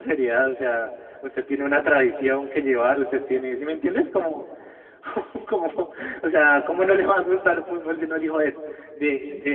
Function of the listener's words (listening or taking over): taking over